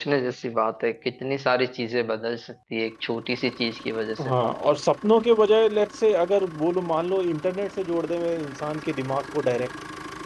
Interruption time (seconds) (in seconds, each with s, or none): none